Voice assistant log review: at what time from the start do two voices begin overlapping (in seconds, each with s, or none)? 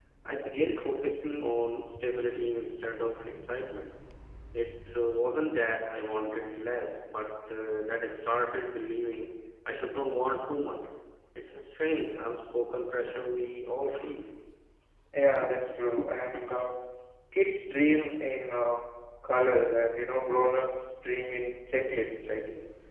none